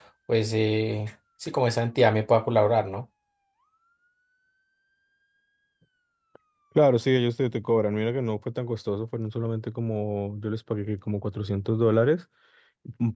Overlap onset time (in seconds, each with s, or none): none